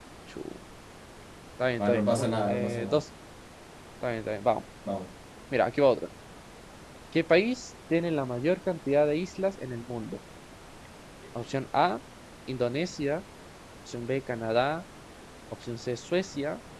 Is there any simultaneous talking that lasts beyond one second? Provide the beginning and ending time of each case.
1.8-3.0

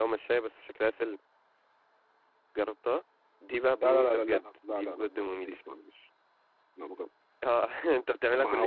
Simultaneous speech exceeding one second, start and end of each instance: 3.8-5.5

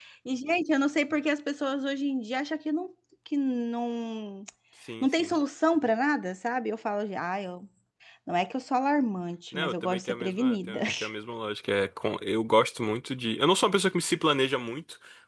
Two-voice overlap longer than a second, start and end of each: 9.5-10.8

